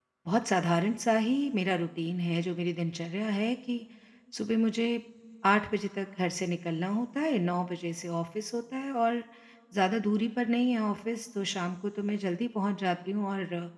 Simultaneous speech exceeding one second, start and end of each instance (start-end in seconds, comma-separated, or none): none